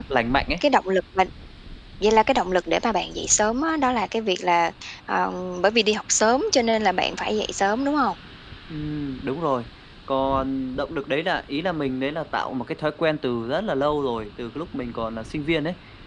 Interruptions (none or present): none